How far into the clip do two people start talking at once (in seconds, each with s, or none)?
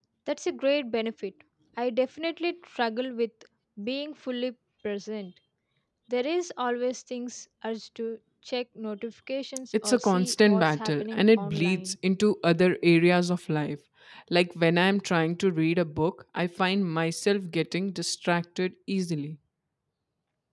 9.7 s